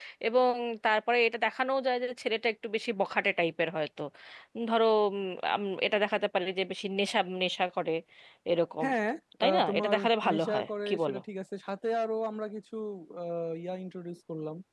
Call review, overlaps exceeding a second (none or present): present